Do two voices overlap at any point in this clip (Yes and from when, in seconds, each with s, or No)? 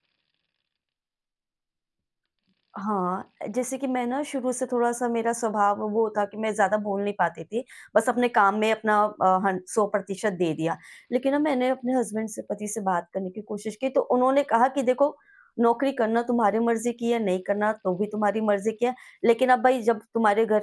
No